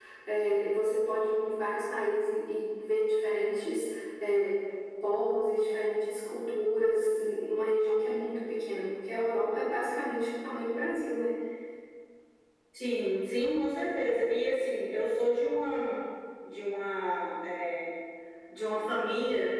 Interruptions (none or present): none